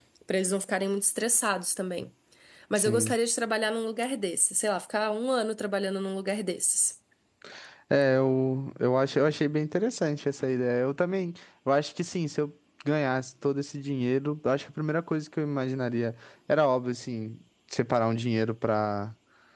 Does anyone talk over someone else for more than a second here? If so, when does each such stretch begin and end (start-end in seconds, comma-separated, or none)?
none